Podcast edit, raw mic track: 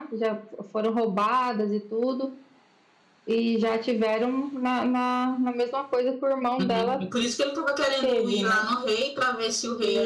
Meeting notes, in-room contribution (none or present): present